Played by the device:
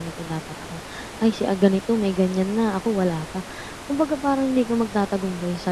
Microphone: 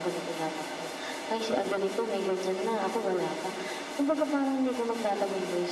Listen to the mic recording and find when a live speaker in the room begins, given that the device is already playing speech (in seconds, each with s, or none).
none